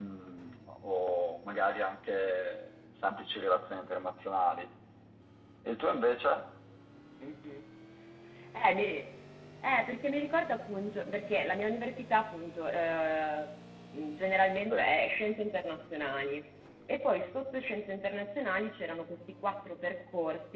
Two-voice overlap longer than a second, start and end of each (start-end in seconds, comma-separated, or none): none